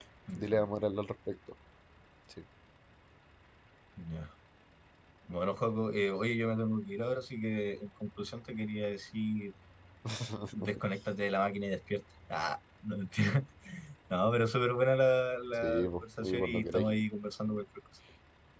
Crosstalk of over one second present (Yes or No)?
Yes